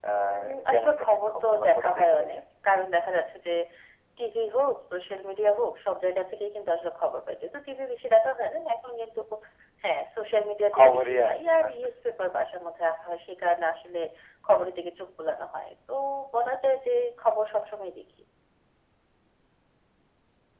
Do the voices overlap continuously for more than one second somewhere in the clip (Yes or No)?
Yes